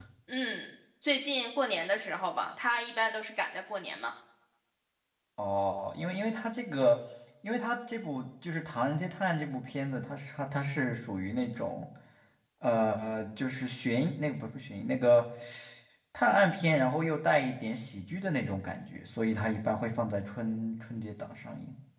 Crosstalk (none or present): none